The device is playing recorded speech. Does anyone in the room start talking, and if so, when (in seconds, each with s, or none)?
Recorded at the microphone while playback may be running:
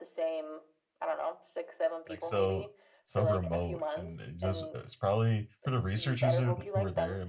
2.1 s